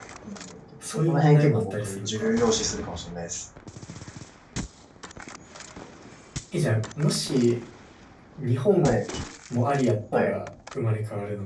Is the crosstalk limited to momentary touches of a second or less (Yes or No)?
No